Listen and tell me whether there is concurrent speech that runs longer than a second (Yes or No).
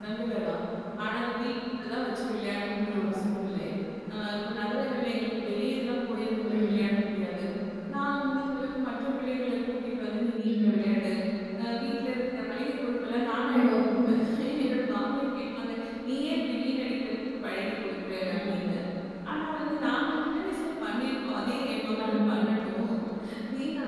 No